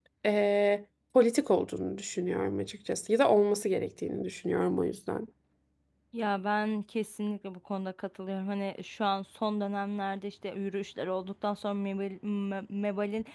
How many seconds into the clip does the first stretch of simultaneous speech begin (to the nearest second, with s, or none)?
none